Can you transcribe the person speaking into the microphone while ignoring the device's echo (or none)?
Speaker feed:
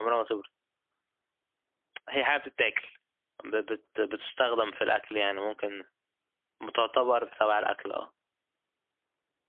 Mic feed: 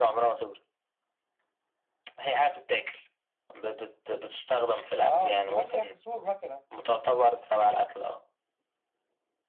أه كنت ماشي تحت سور مثلا